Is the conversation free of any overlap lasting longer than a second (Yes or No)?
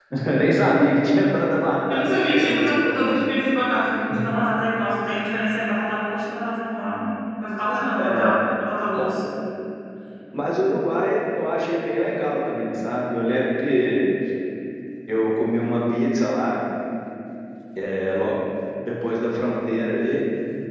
No